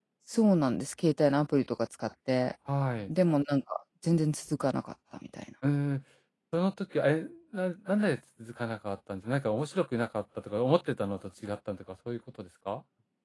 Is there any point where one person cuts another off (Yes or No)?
No